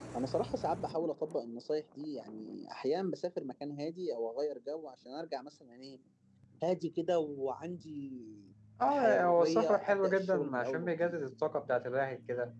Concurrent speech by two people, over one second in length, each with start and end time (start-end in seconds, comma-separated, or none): 8.8-11.1